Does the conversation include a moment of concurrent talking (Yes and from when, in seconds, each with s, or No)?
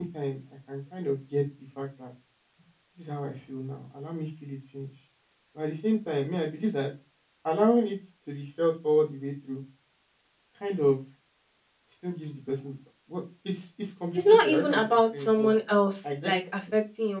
Yes, from 14.2 s